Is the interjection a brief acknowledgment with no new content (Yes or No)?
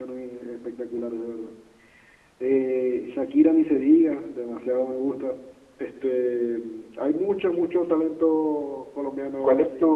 No